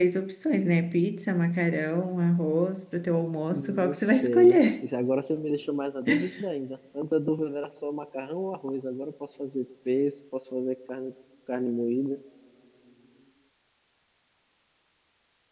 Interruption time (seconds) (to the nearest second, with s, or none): 4 s